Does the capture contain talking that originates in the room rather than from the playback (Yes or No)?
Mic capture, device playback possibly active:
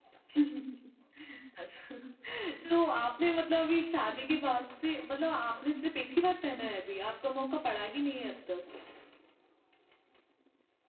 No